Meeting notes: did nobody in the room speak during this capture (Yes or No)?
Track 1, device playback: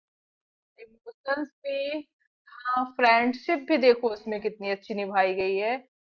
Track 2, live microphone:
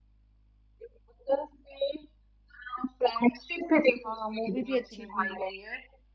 No